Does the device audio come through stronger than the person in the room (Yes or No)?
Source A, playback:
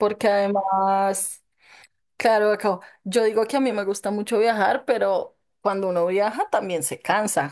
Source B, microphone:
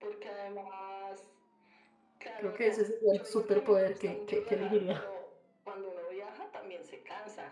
No